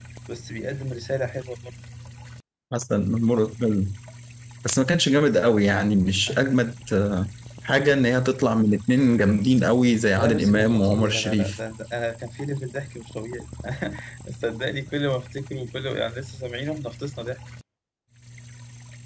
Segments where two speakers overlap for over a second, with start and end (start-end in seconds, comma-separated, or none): 10.2-11.6